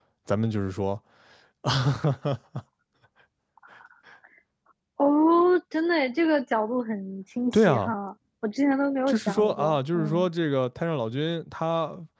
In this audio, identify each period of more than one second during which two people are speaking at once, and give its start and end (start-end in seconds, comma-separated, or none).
9.1-10.3